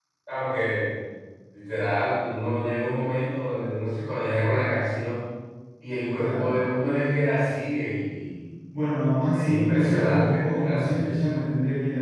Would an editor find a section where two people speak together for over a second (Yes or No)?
Yes